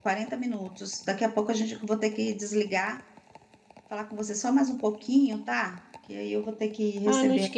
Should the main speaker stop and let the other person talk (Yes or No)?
Yes